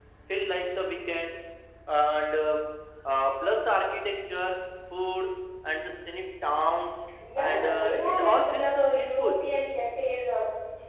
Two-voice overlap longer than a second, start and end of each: 7.4-9.3

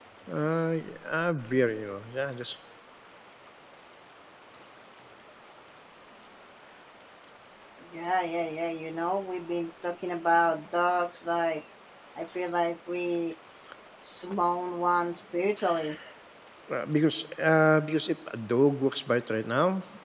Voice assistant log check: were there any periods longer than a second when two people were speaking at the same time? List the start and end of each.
none

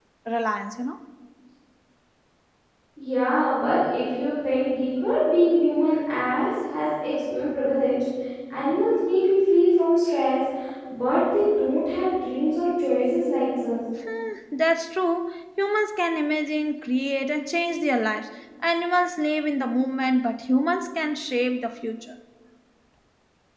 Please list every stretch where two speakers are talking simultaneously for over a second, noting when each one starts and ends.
none

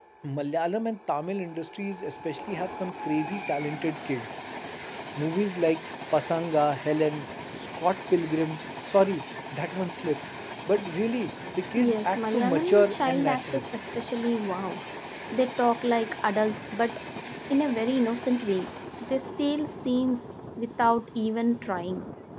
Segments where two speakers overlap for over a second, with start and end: 11.8-13.6

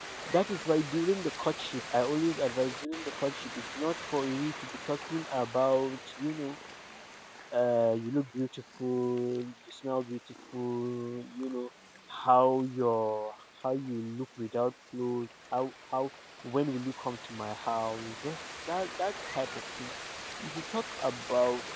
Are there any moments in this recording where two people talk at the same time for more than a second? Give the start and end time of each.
none

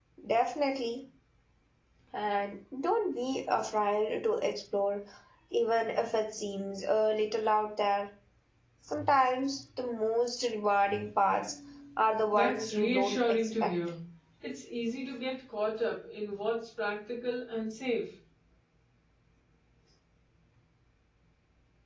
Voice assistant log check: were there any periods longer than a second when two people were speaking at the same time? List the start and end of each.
12.3-13.7

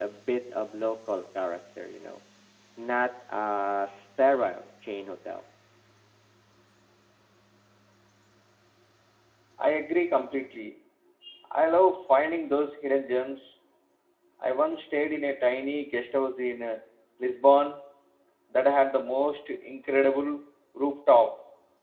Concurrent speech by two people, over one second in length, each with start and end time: none

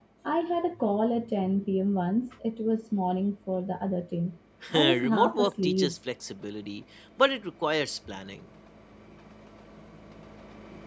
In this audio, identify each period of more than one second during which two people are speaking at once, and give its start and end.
4.7-5.9

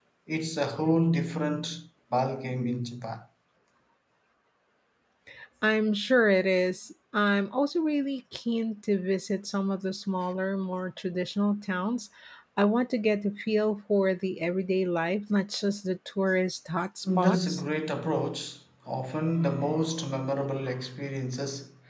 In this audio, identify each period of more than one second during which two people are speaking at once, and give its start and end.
none

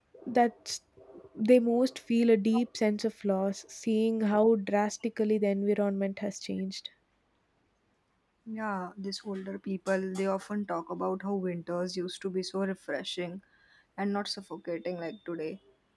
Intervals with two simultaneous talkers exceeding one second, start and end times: none

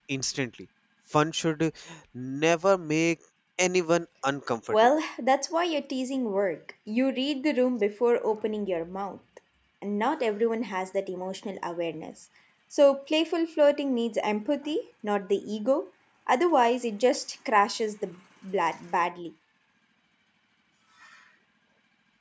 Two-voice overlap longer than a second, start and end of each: none

